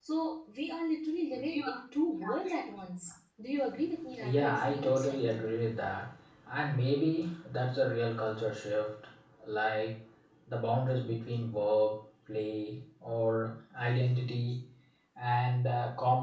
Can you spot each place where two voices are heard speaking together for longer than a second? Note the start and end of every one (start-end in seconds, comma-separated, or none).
4.2-5.4